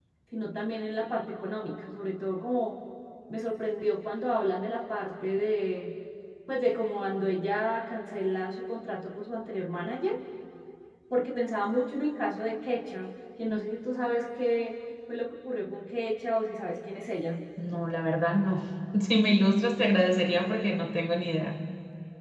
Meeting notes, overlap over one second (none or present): none